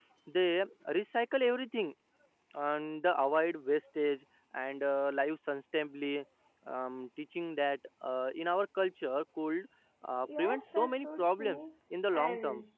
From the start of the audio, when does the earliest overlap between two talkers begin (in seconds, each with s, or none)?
10.2 s